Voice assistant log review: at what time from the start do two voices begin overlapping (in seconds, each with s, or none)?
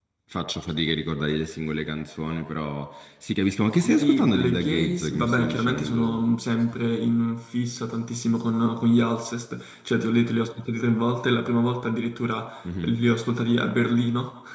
3.8 s